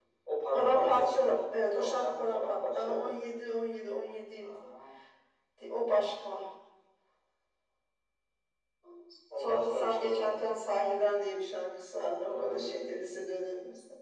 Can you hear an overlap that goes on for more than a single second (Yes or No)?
Yes